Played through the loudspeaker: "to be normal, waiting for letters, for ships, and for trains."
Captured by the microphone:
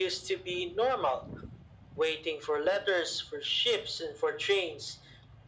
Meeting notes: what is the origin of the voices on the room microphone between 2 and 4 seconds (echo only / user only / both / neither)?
echo only